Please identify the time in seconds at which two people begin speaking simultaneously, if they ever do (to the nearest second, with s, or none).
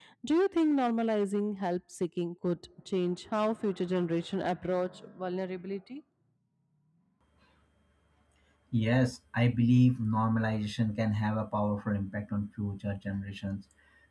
none